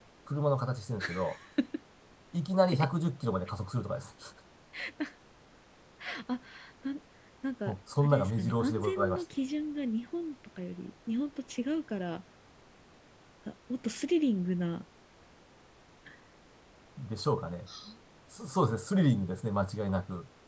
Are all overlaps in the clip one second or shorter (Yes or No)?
No